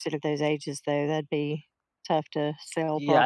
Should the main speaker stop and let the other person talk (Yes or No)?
Yes